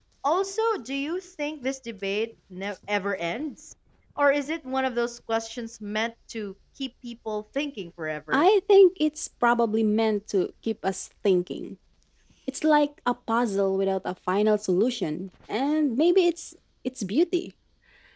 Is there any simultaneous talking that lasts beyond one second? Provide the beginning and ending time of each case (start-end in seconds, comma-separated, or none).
none